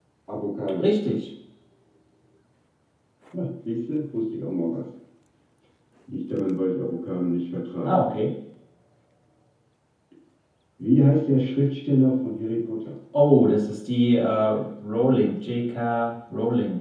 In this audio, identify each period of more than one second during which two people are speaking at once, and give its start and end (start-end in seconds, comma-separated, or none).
none